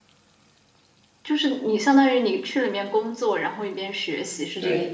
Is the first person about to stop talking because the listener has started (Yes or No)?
Yes